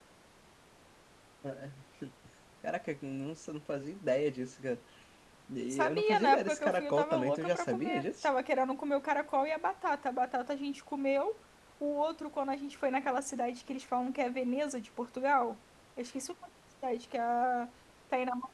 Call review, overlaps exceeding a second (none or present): present